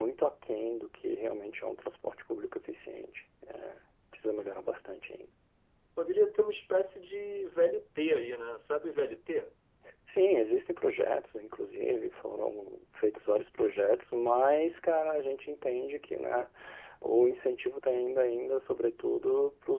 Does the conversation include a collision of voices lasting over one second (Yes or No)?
No